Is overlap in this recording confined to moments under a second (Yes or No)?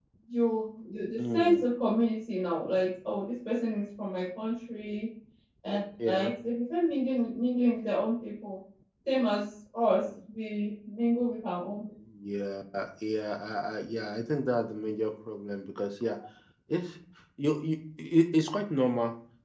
Yes